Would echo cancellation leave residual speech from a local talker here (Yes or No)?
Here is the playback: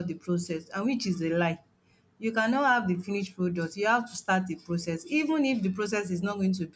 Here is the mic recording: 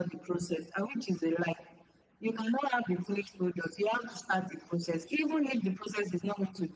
No